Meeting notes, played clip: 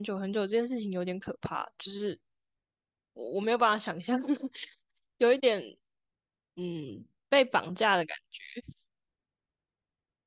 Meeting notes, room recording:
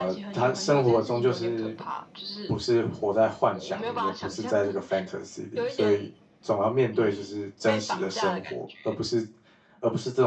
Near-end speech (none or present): present